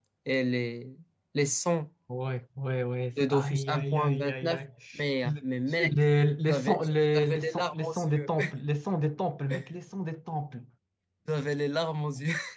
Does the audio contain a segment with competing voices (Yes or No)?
Yes